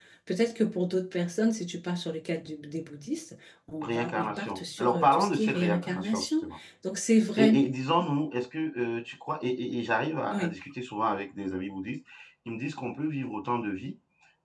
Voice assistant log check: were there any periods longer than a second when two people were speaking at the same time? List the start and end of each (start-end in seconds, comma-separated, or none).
3.8-6.5